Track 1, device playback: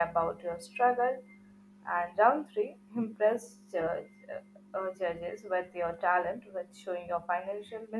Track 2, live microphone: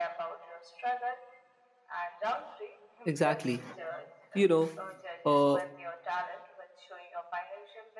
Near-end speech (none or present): present